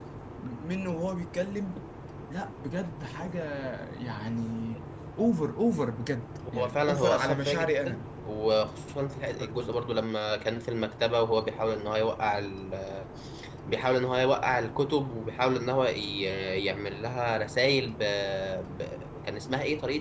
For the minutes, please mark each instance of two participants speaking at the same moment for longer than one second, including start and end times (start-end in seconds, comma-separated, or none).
6.6-8.0